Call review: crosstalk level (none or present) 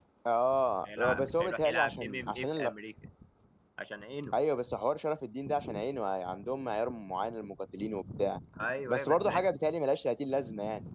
present